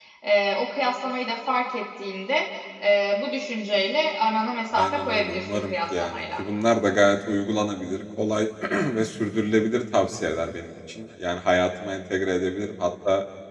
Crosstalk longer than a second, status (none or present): present